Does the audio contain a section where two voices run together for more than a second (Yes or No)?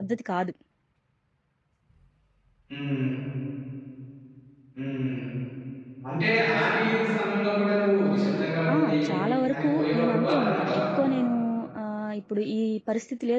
Yes